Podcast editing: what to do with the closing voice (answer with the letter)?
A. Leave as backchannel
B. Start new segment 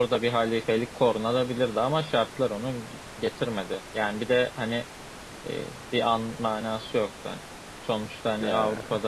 A